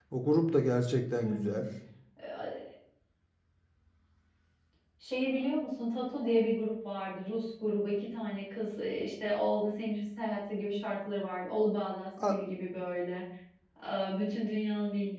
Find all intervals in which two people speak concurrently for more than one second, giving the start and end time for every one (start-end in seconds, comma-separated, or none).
none